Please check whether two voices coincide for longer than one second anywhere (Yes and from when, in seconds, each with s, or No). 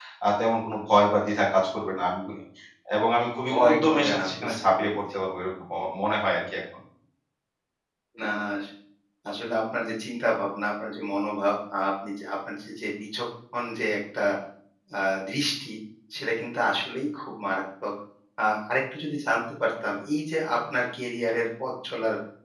Yes, from 3.5 s